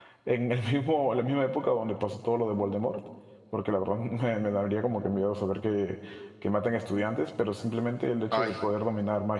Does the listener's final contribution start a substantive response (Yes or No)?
No